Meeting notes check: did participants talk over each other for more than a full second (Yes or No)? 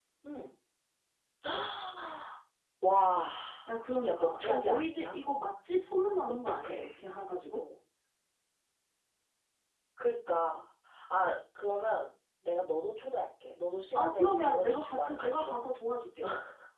Yes